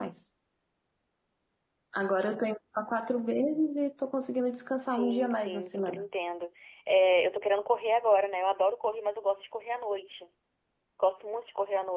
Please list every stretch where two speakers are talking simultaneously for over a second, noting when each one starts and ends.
4.8-6.0

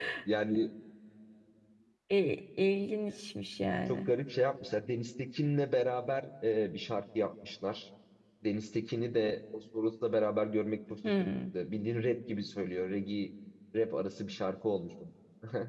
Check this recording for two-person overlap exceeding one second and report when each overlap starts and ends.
none

